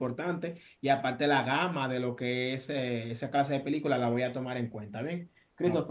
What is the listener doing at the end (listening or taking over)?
listening